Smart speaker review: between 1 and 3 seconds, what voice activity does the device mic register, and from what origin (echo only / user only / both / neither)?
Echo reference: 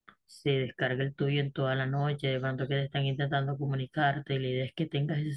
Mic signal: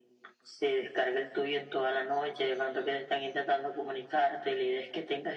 echo only